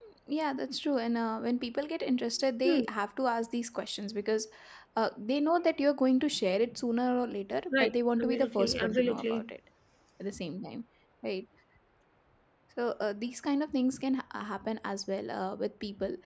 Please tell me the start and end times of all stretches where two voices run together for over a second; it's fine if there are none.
7.7-9.5

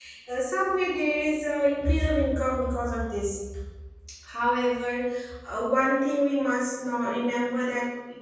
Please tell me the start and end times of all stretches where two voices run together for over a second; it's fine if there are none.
none

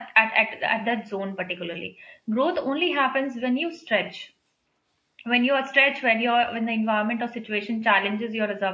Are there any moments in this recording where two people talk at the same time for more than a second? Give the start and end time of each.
none

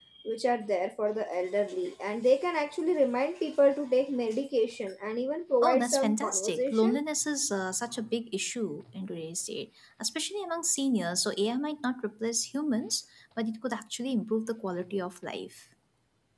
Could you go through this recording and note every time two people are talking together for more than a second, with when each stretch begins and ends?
5.6-7.0

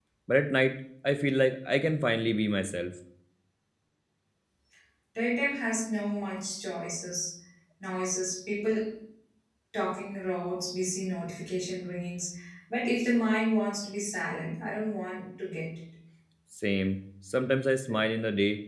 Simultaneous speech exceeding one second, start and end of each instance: none

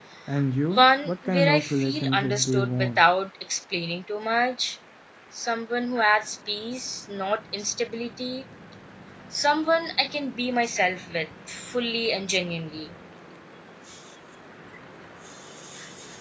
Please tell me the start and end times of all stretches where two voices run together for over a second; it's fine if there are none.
0.8-3.0

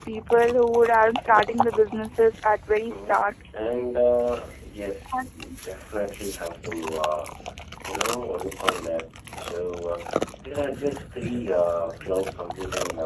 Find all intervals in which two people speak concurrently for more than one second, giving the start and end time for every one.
none

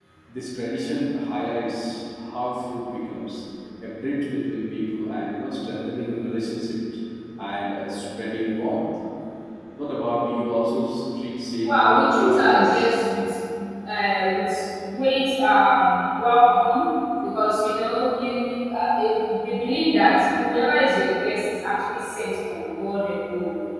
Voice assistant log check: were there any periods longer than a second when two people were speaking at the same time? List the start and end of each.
11.7-12.9

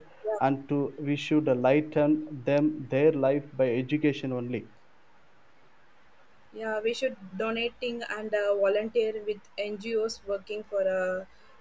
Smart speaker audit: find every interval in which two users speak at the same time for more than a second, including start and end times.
none

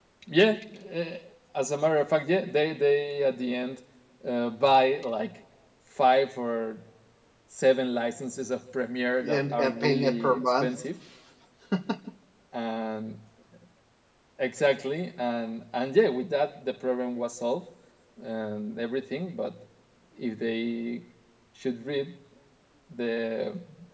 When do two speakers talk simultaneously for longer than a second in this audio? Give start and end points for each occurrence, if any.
9.2-10.7

